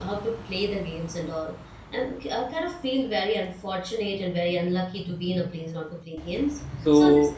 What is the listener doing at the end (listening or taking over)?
listening